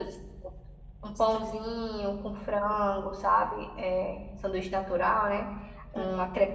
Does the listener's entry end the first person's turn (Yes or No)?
No